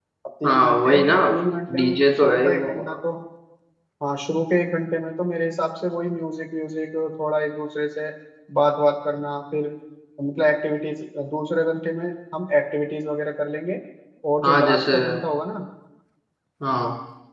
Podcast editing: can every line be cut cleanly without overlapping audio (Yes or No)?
No